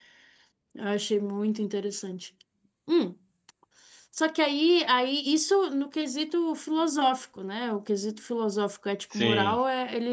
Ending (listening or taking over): listening